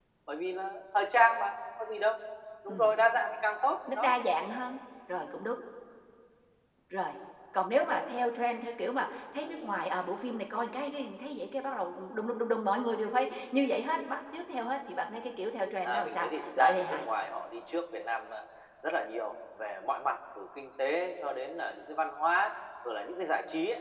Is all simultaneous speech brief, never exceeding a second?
No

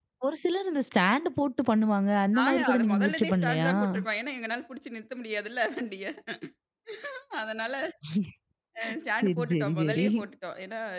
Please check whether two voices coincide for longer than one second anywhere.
Yes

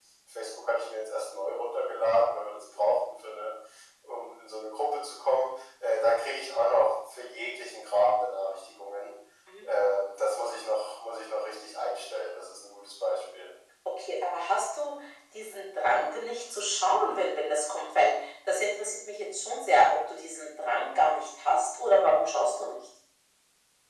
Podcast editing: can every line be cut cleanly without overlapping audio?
Yes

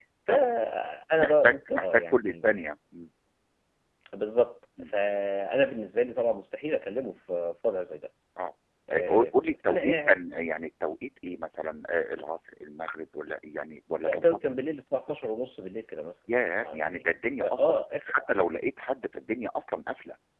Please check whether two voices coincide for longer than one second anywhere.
Yes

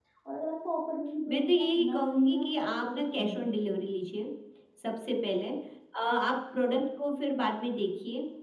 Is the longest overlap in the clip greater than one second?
Yes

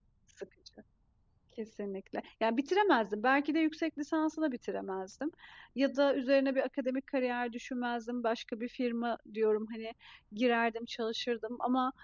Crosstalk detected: No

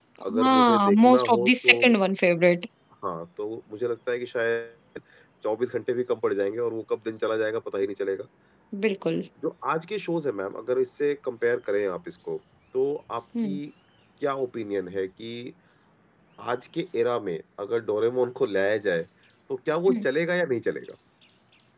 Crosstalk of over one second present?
Yes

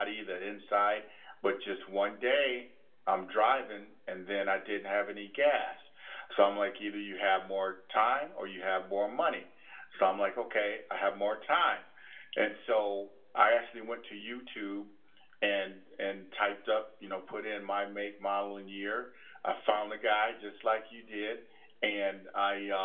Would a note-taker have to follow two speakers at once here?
No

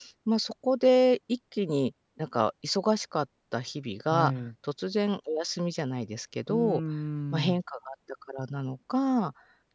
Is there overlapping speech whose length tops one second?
No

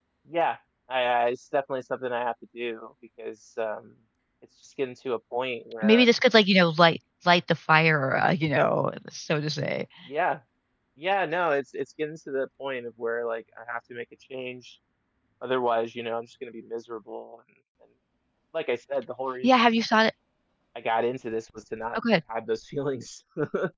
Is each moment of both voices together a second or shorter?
Yes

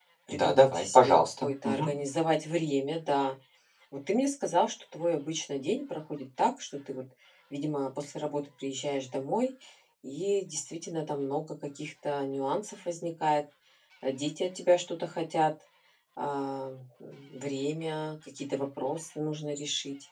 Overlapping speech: Yes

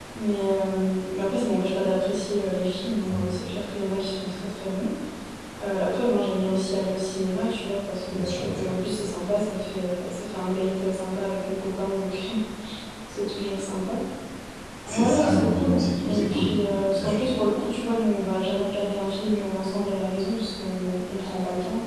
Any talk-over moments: Yes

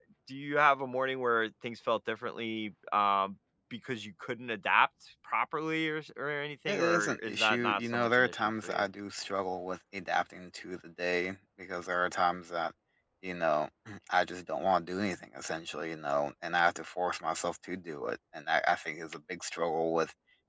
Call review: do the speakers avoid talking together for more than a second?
No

